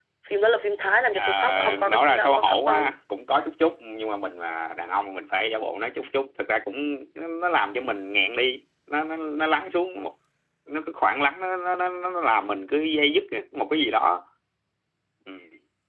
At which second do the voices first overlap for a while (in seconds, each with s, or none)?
1.1 s